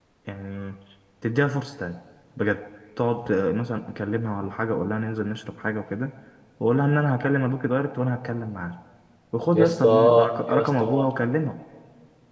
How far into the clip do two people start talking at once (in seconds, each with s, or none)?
9.5 s